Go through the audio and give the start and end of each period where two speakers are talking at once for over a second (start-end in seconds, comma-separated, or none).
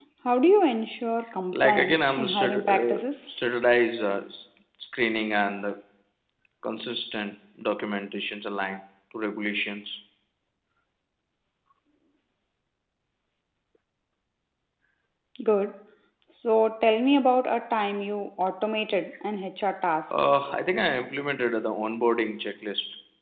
1.5-3.4